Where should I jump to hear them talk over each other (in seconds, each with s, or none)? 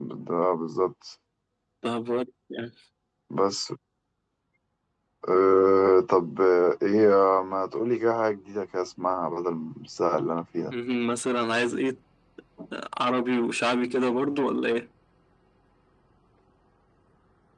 none